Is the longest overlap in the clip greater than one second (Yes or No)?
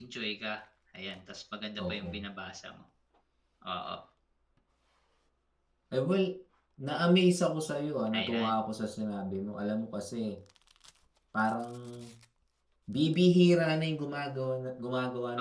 No